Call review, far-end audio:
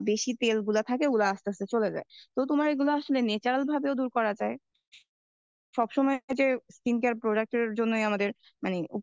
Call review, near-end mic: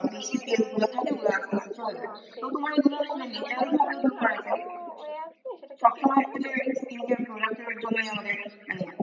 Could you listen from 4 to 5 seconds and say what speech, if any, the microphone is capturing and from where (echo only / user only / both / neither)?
both